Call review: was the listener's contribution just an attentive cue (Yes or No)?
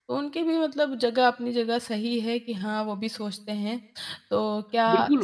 No